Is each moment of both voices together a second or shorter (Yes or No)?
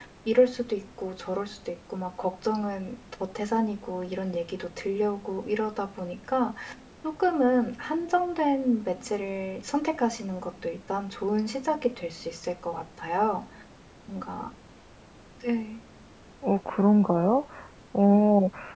Yes